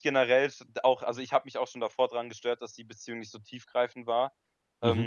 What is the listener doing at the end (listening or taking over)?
listening